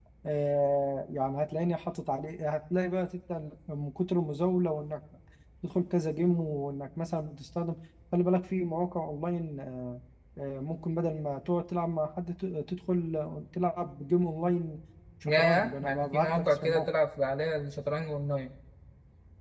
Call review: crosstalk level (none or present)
present